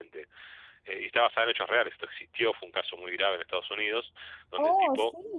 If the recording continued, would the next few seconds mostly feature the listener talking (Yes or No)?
Yes